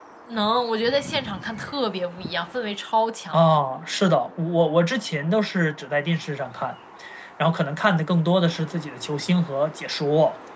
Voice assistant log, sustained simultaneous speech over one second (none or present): none